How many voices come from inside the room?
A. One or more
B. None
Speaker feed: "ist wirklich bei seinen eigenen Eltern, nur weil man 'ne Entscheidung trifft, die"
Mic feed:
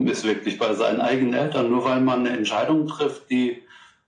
B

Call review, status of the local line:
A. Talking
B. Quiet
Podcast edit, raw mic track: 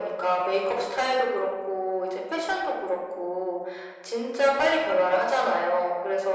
B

